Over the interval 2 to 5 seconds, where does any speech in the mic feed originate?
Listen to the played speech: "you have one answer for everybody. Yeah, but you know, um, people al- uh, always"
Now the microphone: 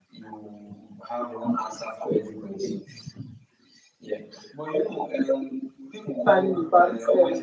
echo only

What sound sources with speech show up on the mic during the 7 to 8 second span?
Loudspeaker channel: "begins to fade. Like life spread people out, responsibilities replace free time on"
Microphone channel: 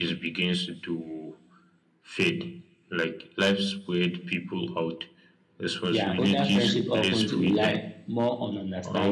both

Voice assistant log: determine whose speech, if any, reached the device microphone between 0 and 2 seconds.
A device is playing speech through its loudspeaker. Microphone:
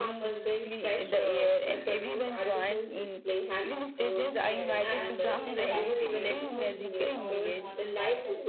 echo only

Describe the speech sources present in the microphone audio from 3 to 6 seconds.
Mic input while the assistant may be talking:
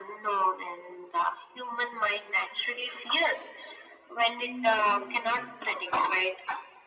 both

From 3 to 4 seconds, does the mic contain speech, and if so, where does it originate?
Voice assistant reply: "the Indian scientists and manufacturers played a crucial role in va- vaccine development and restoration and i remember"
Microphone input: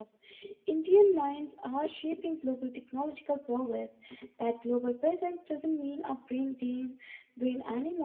user only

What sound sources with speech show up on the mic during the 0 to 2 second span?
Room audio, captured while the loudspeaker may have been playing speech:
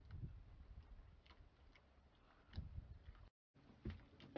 neither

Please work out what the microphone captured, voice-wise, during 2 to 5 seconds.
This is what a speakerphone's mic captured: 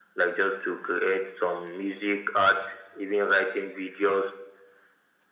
echo only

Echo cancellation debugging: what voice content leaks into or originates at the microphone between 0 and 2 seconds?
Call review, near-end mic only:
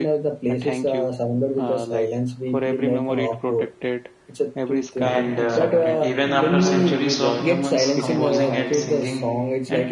echo only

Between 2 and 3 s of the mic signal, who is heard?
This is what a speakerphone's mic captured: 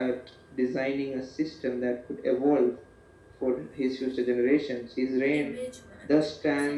echo only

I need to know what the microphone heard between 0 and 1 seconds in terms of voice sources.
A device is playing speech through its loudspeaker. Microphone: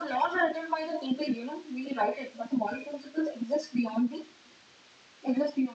echo only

